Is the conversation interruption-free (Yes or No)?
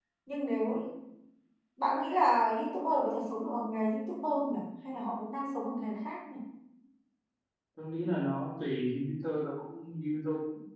Yes